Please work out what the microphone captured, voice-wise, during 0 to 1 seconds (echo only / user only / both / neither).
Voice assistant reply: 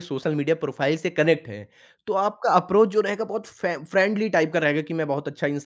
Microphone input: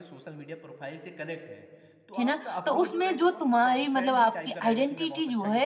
echo only